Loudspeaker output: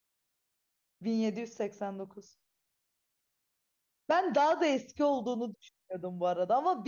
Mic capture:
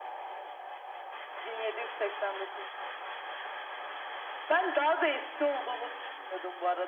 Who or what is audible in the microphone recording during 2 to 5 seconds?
echo only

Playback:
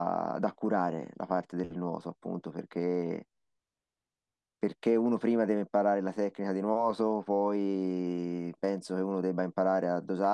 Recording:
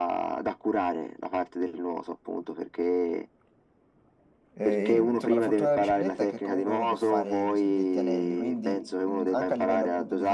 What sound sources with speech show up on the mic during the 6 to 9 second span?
both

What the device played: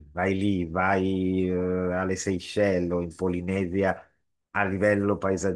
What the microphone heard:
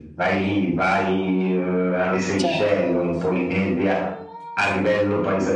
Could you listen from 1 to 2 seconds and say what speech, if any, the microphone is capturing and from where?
echo only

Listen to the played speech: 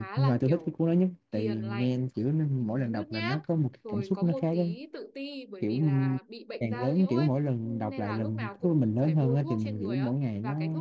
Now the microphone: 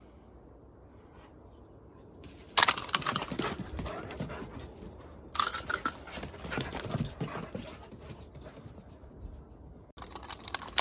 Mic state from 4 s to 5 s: neither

